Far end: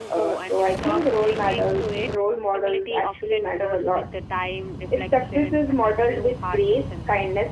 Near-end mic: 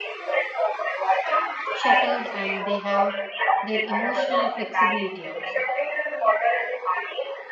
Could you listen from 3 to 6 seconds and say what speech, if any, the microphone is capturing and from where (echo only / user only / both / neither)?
both